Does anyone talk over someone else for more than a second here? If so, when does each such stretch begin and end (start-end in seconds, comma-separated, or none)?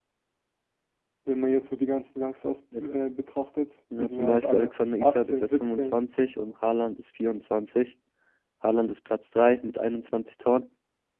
4.0-6.0